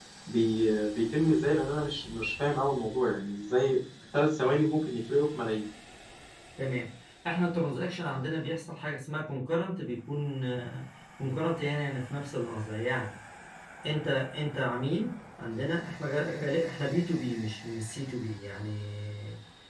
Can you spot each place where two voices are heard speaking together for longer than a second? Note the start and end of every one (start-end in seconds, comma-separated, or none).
none